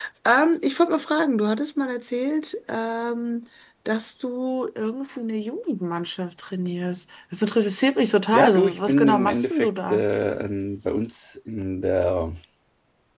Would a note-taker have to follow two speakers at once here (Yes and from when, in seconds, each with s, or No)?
Yes, from 8.3 s